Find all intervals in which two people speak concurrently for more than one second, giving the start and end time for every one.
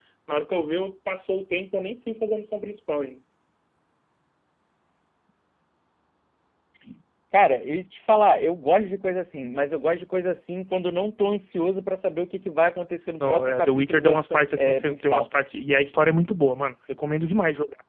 13.2-15.3

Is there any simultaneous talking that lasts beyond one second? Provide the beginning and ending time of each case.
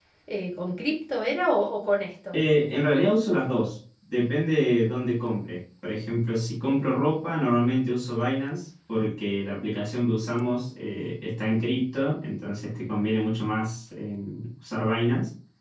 none

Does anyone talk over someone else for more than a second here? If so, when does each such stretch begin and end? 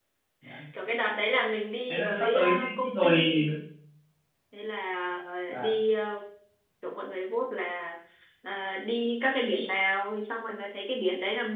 1.9-3.4

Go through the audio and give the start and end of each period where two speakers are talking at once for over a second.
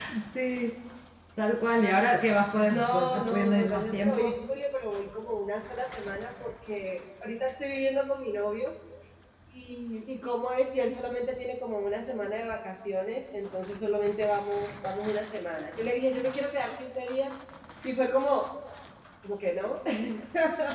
2.6-4.4

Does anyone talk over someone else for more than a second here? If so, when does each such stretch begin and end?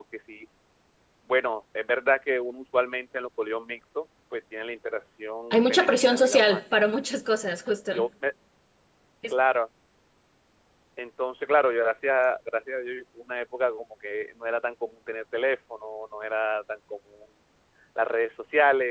5.5-6.8

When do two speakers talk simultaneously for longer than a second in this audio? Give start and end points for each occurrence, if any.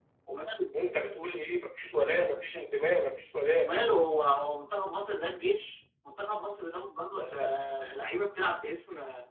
none

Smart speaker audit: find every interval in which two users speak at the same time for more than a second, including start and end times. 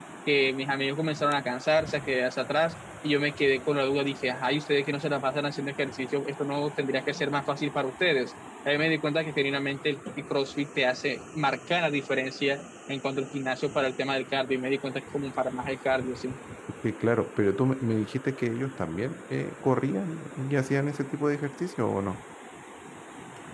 none

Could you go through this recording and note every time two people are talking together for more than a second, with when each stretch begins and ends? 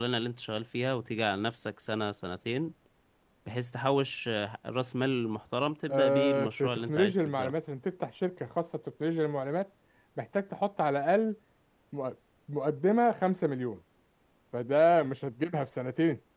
5.9-7.5

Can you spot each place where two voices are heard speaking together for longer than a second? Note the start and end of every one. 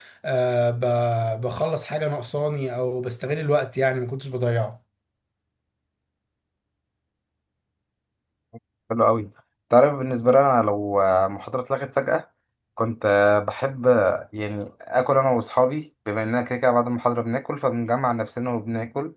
none

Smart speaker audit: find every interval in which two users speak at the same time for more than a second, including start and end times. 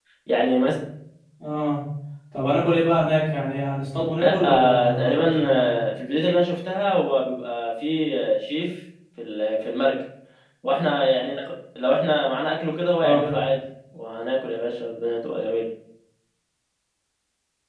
4.2-5.7

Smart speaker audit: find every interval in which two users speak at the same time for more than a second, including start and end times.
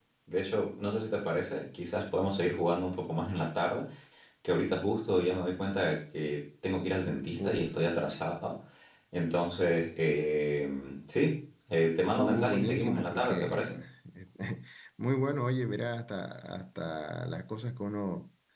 12.1-13.7

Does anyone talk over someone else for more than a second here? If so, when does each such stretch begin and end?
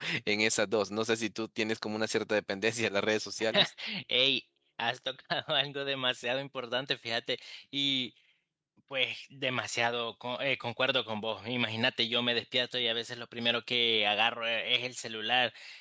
none

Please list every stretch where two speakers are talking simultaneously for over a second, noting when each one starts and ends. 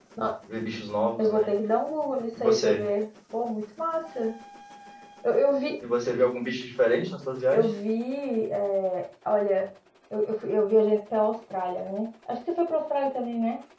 none

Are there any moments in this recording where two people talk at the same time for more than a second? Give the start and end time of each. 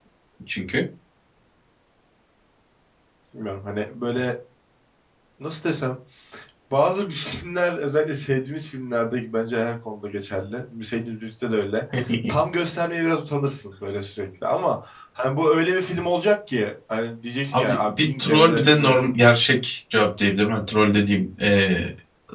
17.5-19.1

